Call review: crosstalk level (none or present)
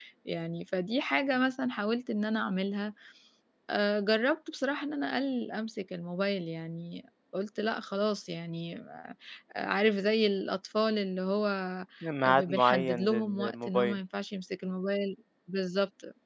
present